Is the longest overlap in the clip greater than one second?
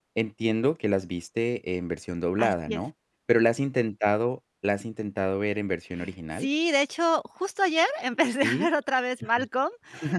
No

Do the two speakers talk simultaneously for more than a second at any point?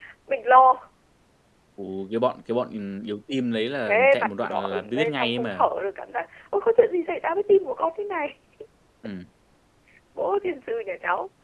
Yes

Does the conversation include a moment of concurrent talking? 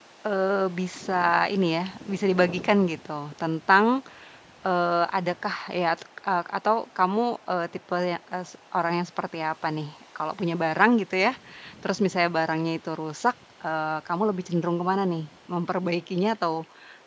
No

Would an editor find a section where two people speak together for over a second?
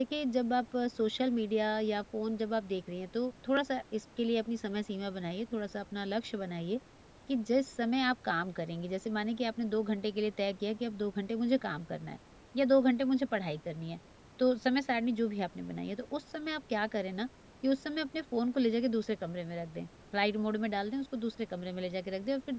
No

